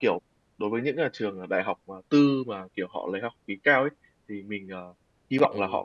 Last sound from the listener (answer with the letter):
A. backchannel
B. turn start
A